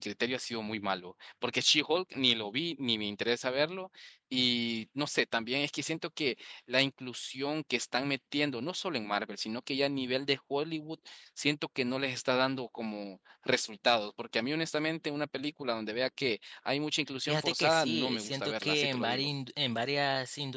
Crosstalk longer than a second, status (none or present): present